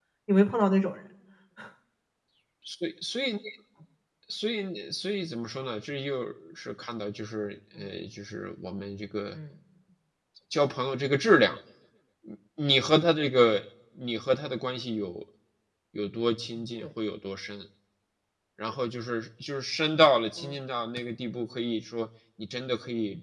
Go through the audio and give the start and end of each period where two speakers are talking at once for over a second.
none

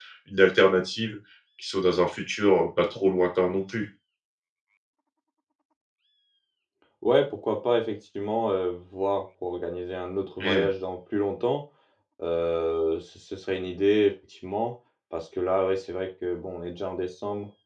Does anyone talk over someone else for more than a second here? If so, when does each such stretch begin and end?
none

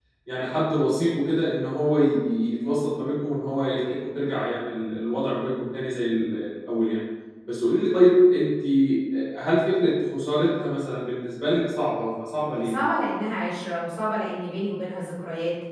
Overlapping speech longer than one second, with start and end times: none

